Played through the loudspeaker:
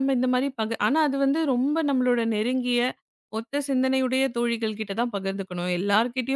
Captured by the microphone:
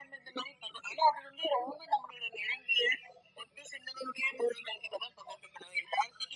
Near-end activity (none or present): none